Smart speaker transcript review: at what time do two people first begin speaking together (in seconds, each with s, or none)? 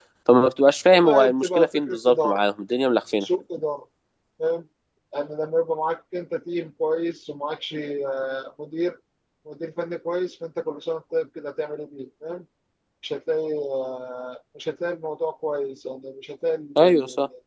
0.9 s